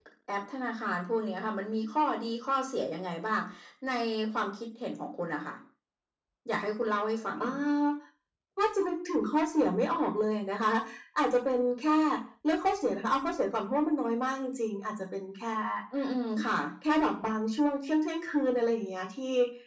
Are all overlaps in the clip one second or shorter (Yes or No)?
Yes